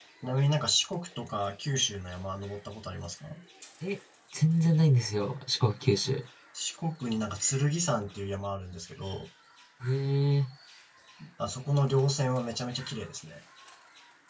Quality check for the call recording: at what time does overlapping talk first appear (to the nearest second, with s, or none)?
none